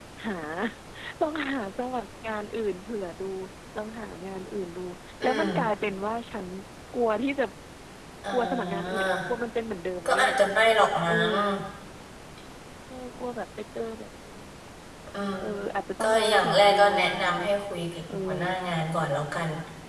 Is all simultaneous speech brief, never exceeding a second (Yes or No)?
No